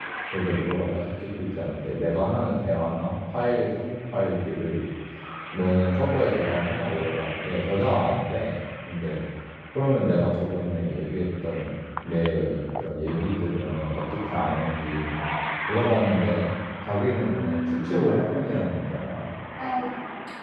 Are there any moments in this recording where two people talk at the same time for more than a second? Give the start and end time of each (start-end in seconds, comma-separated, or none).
17.4-18.6